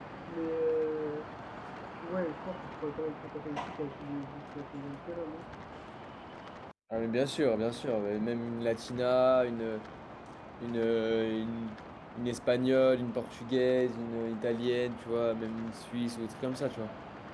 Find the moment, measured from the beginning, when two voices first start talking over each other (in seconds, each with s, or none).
none